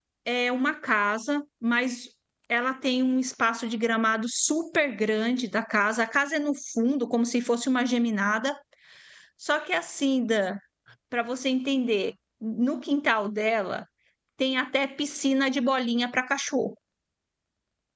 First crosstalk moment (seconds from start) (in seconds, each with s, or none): none